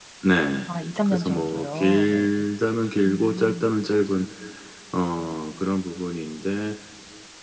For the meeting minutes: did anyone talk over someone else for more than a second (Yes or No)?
Yes